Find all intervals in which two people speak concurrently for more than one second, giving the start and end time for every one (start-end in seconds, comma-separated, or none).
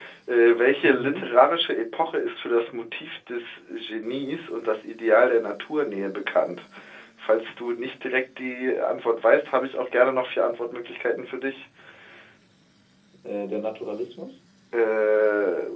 none